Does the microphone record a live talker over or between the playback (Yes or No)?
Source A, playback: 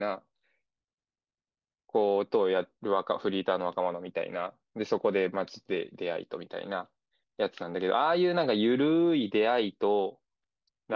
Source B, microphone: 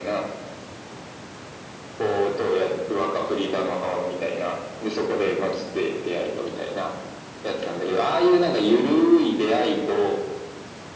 No